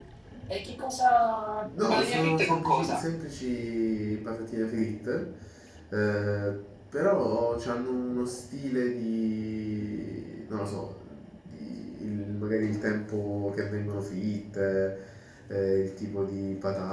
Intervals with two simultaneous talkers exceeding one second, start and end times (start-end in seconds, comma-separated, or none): 1.8-3.0